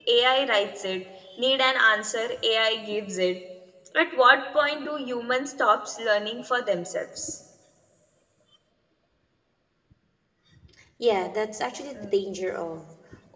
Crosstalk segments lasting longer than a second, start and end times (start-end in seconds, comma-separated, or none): none